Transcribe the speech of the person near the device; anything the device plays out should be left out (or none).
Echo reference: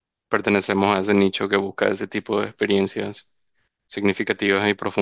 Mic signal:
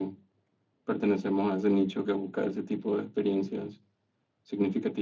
none